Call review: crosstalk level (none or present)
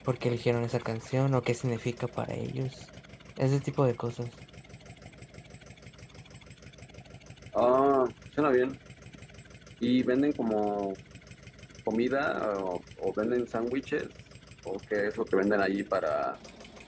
none